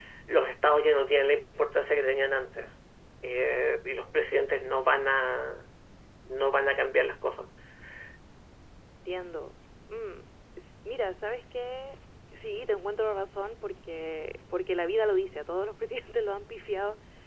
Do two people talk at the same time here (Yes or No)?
No